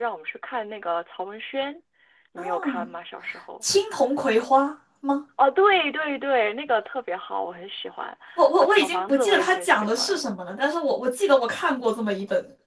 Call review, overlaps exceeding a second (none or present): present